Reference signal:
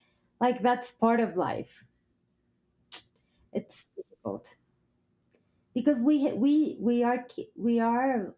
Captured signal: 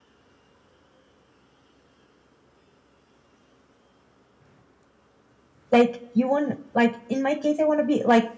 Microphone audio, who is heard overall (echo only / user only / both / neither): user only